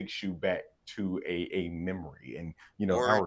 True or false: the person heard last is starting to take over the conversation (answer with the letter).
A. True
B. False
B